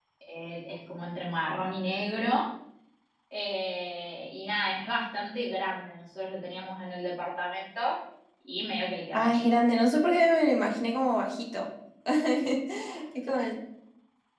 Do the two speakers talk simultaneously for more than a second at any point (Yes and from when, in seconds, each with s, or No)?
No